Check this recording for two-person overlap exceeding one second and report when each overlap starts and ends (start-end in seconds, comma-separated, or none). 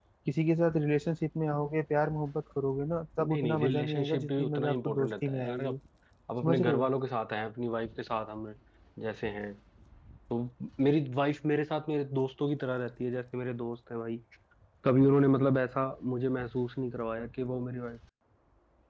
3.2-5.8